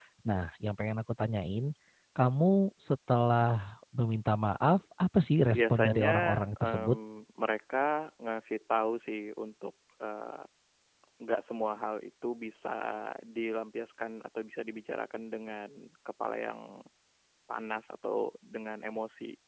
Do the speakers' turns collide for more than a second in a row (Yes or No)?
Yes